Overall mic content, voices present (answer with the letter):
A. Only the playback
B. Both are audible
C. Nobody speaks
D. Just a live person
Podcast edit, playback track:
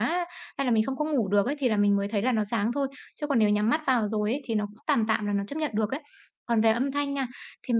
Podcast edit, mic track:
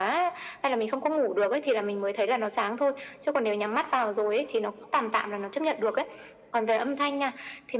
A